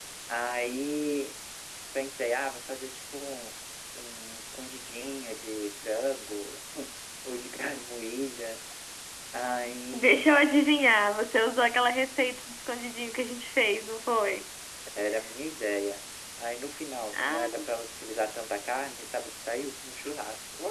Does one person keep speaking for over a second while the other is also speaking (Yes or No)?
No